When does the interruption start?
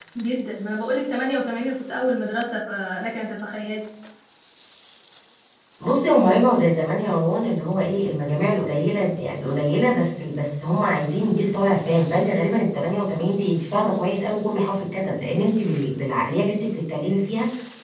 none

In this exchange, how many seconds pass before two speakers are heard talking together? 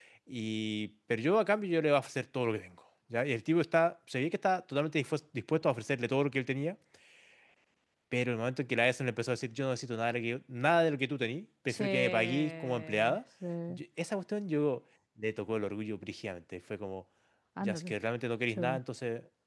12 s

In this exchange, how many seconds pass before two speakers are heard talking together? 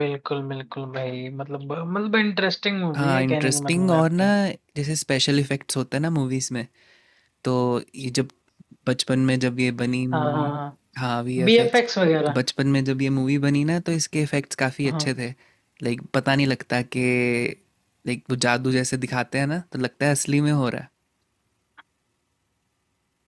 3 s

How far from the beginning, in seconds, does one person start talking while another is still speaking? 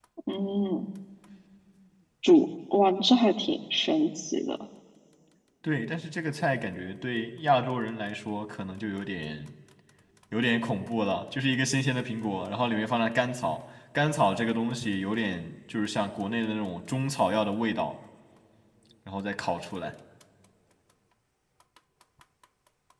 none

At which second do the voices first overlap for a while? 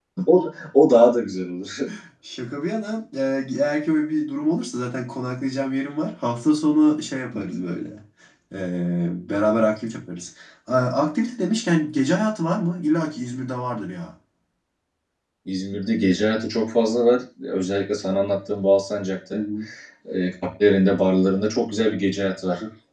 none

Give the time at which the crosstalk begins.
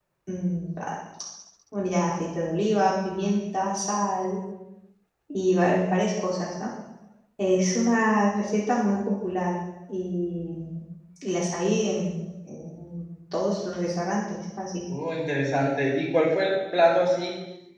none

